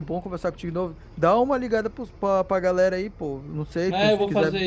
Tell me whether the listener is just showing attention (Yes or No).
No